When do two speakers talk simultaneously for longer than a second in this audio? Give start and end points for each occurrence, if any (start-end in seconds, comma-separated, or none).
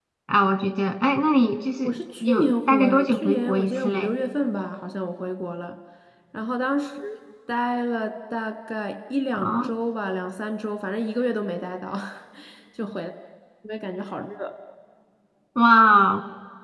1.8-4.1